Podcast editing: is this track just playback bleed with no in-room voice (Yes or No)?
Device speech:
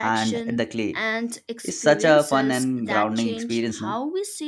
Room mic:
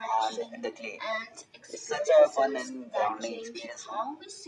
Yes